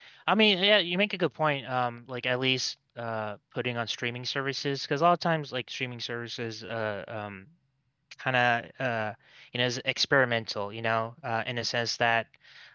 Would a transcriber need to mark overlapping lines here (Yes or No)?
No